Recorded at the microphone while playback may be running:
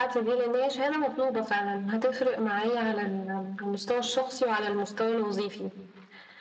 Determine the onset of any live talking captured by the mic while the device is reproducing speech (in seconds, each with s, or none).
none